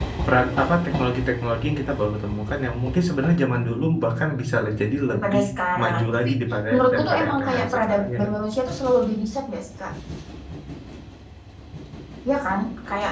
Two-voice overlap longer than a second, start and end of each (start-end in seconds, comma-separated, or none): 6.7-8.3